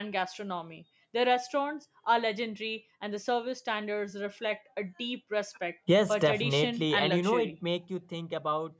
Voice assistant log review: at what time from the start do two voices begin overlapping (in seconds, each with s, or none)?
5.9 s